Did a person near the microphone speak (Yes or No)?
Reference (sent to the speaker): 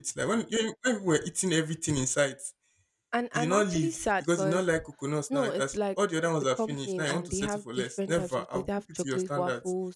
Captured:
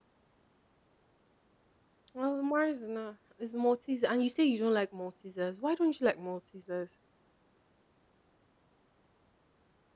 Yes